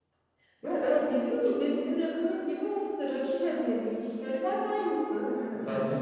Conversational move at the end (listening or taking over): taking over